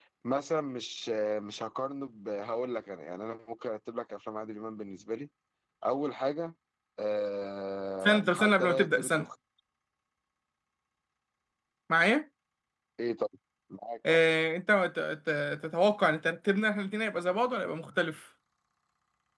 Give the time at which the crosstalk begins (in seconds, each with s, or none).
8.0 s